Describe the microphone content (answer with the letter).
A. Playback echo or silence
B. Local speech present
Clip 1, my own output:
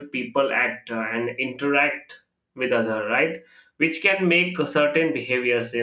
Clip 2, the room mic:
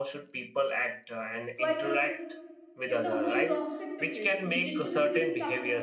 B